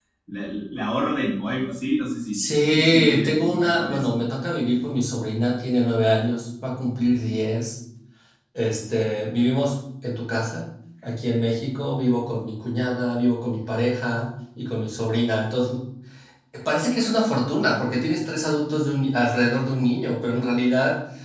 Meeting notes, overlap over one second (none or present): present